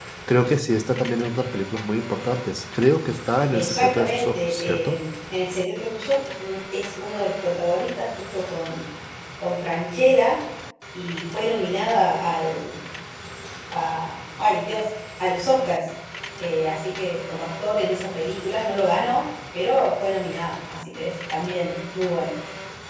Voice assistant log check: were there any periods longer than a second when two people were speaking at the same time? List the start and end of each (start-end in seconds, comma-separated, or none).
3.5-5.0